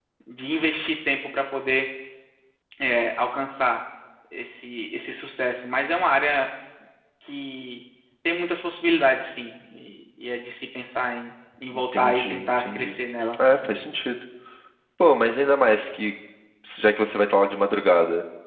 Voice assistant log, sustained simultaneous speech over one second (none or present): present